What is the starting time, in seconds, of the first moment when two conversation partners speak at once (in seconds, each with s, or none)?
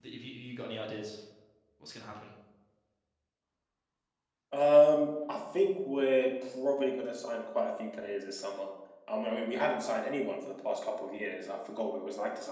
none